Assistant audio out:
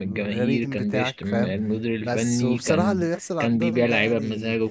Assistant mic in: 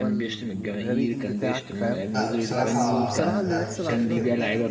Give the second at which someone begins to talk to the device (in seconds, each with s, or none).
2.1 s